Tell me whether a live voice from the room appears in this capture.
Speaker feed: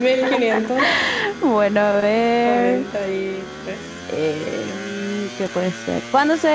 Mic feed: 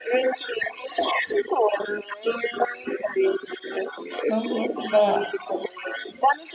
Yes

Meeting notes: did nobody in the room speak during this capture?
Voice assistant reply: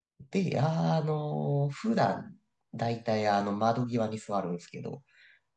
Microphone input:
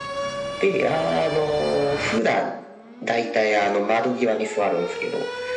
Yes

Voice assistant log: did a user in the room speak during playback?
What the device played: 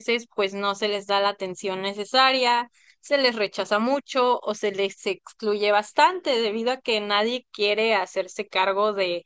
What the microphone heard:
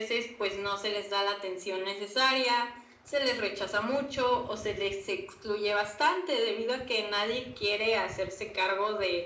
No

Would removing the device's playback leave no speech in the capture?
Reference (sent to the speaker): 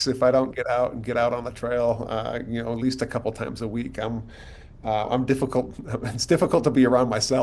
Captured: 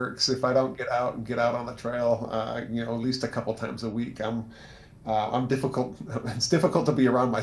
Yes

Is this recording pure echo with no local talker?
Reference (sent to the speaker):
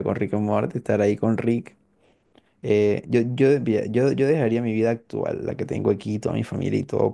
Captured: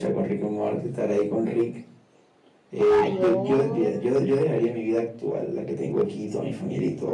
No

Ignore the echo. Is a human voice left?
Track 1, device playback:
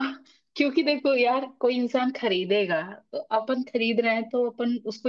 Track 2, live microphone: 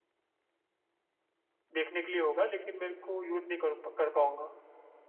Yes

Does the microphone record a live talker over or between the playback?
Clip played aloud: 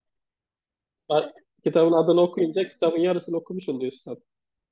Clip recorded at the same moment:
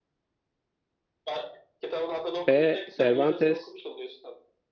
Yes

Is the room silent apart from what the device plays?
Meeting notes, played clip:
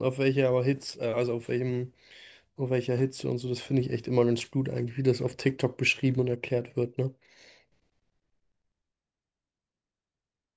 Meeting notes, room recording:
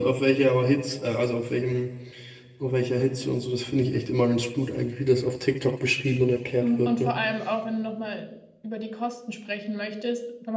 No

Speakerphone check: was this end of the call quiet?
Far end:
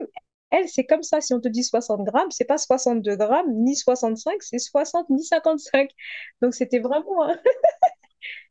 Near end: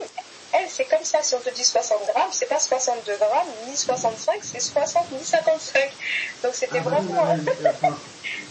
No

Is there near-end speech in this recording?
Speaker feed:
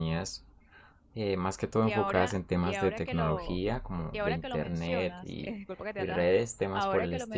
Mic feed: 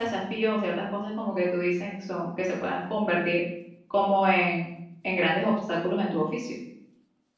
Yes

